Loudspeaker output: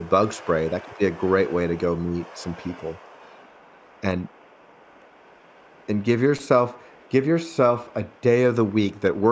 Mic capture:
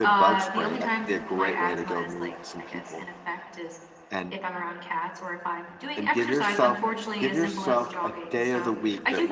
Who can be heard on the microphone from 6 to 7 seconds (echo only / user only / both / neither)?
both